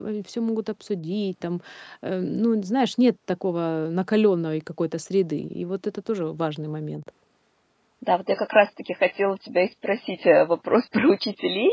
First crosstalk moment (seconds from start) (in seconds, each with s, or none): none